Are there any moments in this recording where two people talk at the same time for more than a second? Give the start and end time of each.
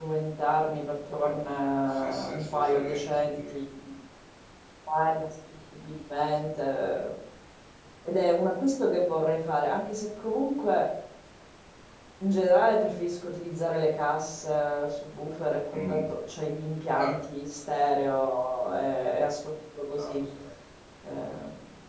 1.2-3.6

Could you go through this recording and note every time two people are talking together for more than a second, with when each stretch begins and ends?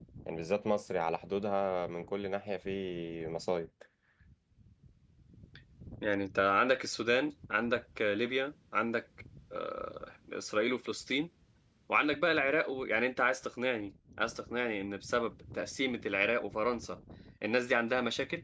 none

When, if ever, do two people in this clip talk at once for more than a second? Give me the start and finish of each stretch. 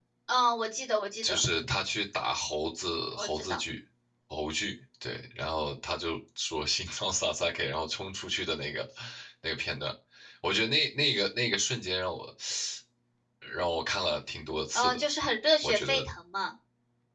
none

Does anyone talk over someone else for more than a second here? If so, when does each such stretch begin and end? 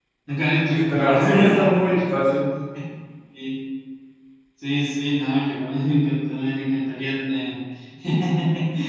0.7-2.0

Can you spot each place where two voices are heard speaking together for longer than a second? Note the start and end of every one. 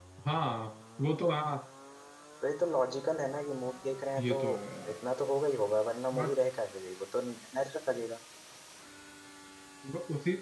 none

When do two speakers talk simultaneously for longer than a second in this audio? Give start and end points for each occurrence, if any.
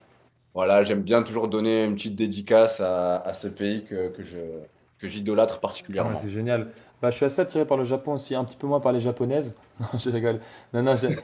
none

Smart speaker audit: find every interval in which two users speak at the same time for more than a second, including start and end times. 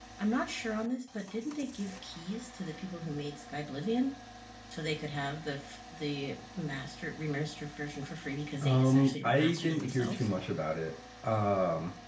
8.6-10.3

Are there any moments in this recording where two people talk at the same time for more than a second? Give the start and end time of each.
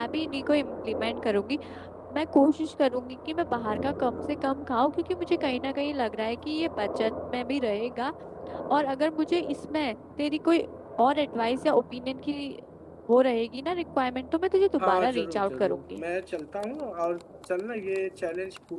14.8-16.0

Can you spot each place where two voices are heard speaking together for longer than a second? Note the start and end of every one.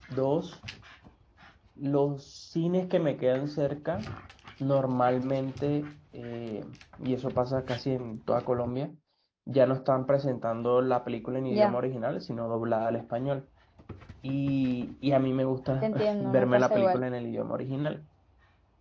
15.8-17.0

